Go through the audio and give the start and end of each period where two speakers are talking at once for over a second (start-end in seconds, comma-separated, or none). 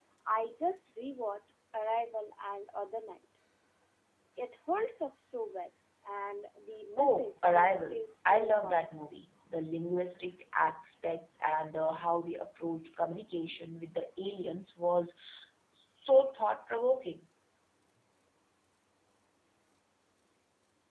7.0-8.8